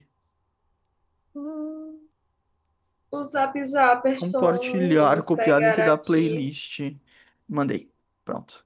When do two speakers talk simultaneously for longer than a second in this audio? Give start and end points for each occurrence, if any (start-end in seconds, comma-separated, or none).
4.2-6.4